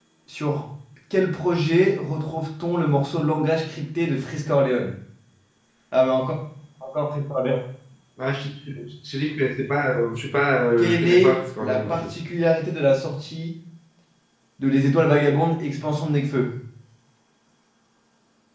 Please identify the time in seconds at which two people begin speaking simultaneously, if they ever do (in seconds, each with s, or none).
10.8 s